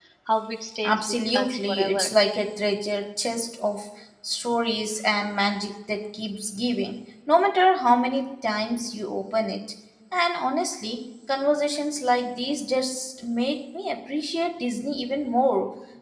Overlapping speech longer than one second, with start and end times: 0.8-2.1

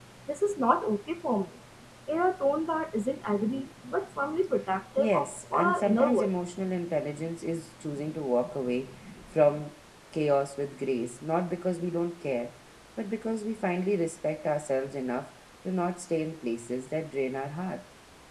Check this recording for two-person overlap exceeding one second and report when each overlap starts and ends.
5.0-6.3

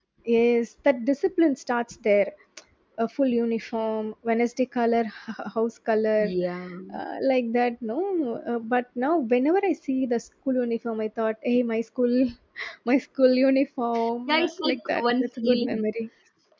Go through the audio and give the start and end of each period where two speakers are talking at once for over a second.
14.3-15.8

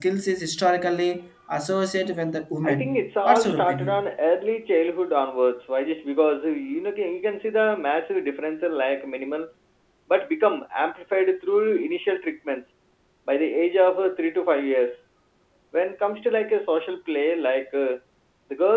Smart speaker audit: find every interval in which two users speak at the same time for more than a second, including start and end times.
2.6-4.0

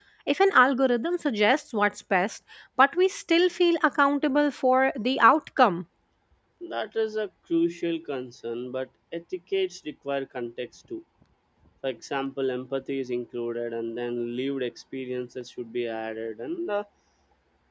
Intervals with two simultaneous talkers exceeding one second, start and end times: none

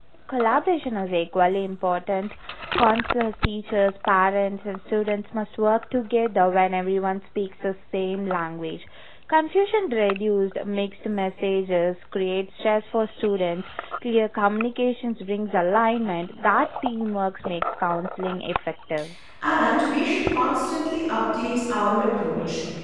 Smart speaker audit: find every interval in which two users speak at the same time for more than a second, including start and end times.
none

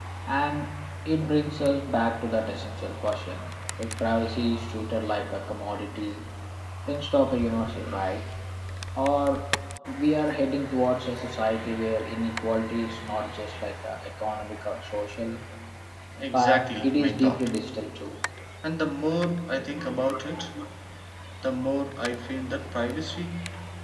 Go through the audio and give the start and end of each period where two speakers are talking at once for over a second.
16.2-17.5

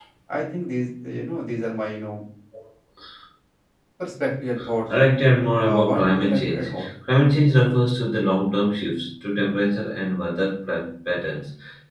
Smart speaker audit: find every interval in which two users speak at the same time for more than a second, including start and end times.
5.6-6.8

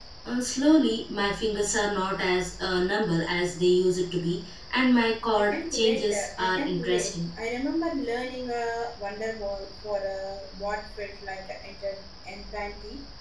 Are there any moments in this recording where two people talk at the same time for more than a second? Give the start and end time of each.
5.4-7.1

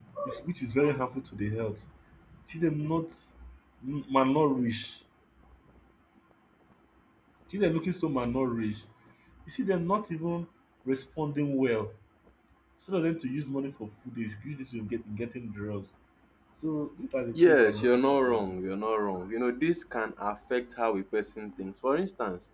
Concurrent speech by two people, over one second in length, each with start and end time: 17.3-18.6

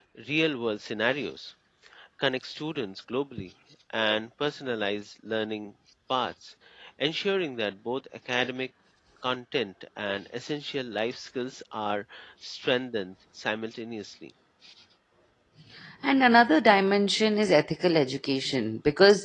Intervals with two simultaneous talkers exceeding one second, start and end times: none

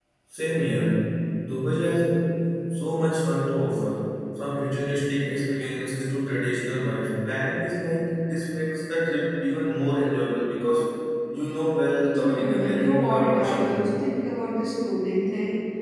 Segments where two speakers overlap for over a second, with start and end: 12.2-13.8

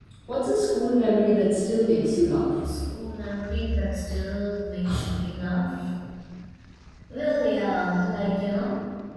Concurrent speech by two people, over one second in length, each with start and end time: none

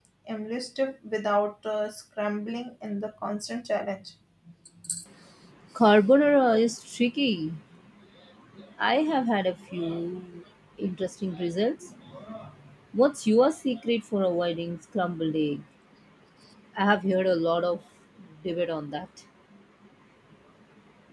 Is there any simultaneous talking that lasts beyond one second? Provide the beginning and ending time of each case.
none

